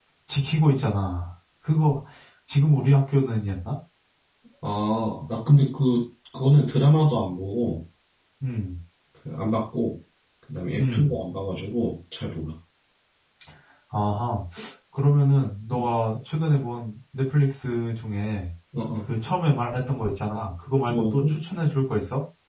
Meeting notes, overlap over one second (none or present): none